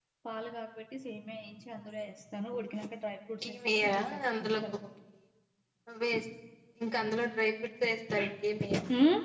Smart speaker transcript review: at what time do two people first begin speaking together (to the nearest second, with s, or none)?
3 s